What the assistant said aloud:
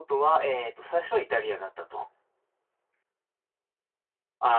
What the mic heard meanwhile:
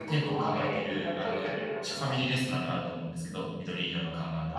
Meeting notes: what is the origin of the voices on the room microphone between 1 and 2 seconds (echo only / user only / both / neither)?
both